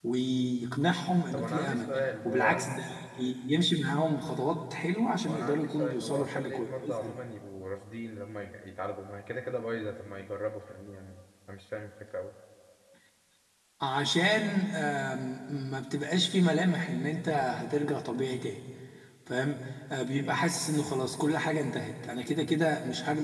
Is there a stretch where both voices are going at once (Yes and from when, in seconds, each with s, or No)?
Yes, from 1.3 s